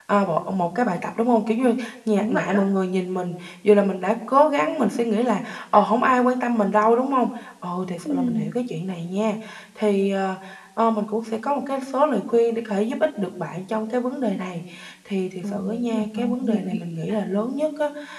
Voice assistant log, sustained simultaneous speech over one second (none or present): present